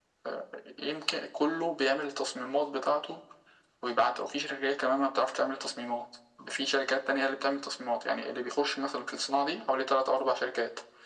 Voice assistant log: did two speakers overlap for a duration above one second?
No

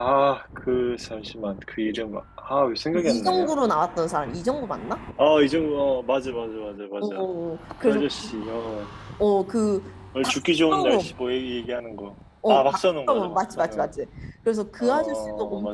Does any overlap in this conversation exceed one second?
Yes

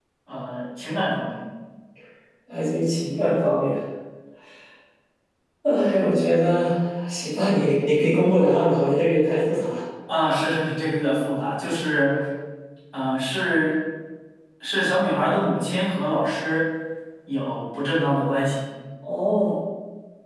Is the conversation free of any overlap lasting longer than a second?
Yes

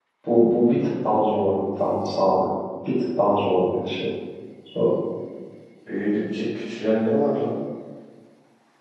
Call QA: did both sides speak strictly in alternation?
Yes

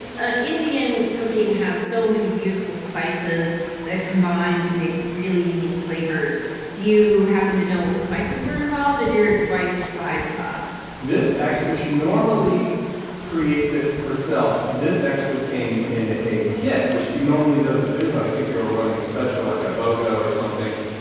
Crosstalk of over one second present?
No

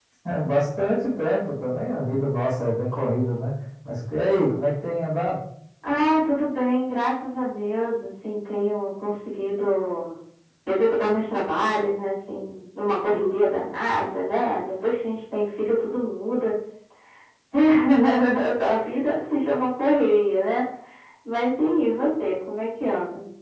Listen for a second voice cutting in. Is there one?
No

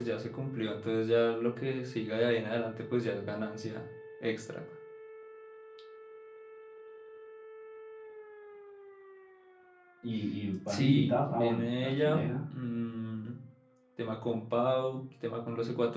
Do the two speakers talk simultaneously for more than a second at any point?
Yes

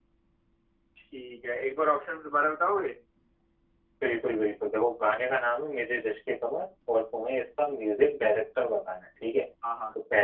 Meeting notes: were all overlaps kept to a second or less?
Yes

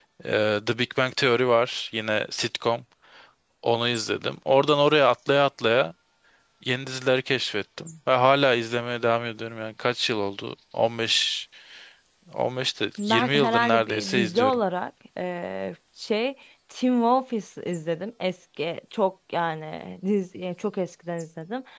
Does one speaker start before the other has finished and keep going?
Yes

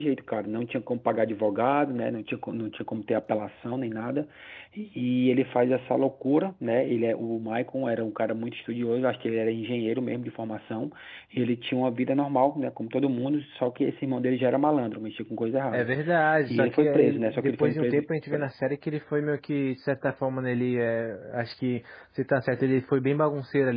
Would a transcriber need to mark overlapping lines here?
Yes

